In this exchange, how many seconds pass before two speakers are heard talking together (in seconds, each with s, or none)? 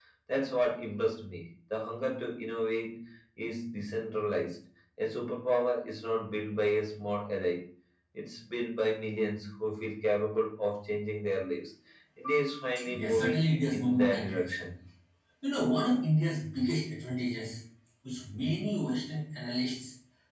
12.8 s